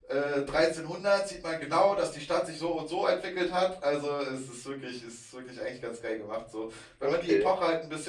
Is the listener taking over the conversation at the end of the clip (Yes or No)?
No